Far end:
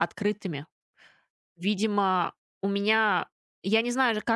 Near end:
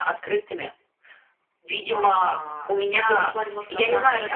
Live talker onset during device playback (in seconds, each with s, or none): 1.9 s